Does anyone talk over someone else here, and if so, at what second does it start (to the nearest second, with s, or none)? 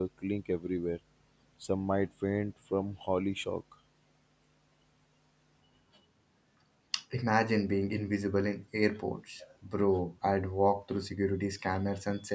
none